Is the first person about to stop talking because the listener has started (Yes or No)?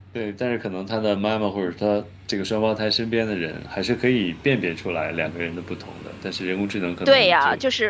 Yes